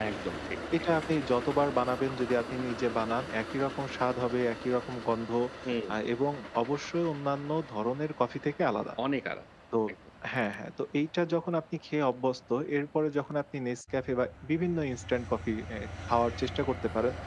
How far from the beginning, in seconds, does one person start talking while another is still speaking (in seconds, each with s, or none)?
none